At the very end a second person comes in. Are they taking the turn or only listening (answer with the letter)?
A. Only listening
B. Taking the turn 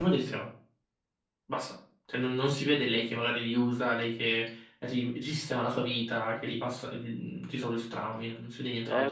B